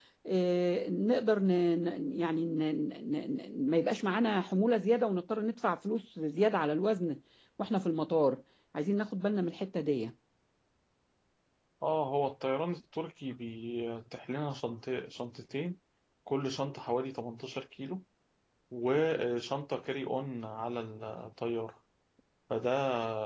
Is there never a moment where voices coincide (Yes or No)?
Yes